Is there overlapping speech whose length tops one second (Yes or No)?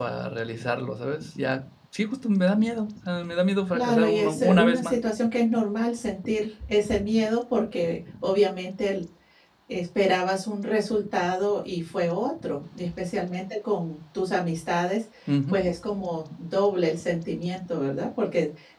Yes